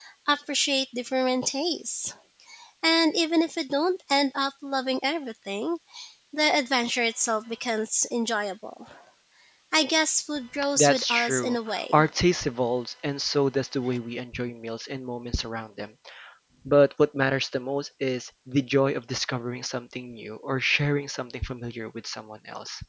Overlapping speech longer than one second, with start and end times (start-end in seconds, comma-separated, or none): 10.8-12.0